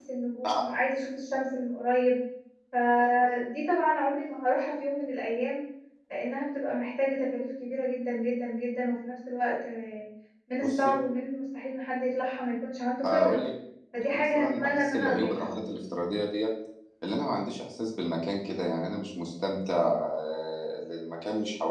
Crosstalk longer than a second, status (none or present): present